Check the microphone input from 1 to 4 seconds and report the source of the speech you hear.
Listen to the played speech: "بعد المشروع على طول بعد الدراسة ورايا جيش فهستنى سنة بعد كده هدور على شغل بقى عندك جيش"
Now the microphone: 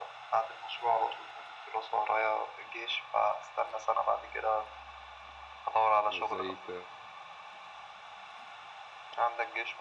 echo only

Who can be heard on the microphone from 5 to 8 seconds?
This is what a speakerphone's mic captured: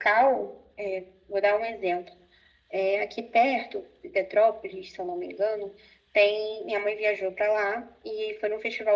echo only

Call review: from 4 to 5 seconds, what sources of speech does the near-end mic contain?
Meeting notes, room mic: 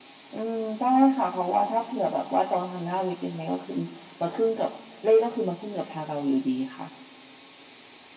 echo only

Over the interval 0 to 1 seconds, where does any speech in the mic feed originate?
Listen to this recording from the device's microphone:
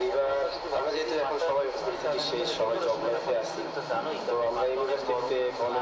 echo only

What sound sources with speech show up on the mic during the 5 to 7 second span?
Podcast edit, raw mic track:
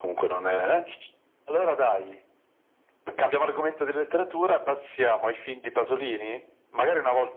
echo only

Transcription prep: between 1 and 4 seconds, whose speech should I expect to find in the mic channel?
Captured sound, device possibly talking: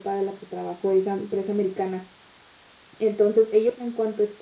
echo only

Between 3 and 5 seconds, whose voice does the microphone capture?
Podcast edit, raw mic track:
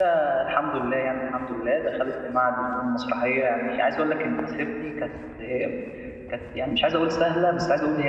user only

